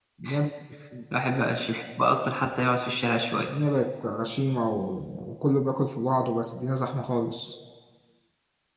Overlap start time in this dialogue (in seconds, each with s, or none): none